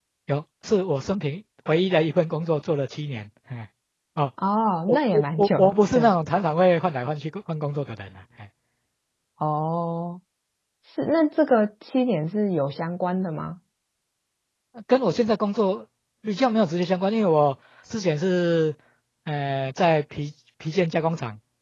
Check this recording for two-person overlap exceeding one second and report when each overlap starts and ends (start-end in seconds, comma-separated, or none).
4.9-6.1